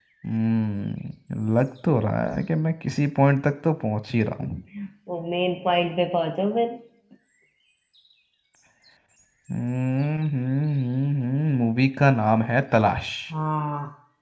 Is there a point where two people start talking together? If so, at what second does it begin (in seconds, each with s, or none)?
none